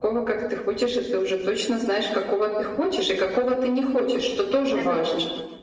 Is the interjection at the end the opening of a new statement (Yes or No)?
Yes